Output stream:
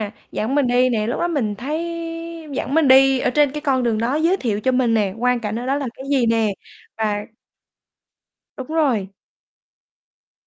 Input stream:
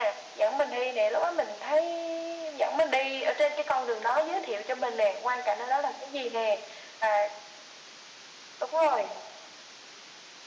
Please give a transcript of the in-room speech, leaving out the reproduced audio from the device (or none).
none